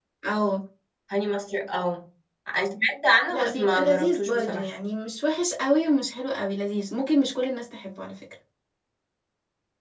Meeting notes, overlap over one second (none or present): present